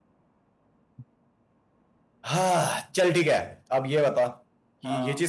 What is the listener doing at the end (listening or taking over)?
listening